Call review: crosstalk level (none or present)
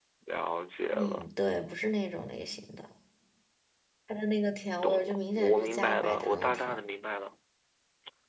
present